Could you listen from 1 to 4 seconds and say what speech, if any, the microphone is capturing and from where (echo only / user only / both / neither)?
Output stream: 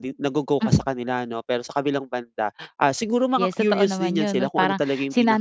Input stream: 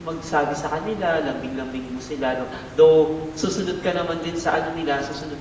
user only